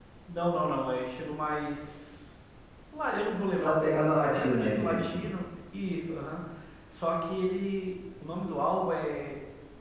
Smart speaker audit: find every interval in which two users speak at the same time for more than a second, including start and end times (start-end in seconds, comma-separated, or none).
3.5-5.3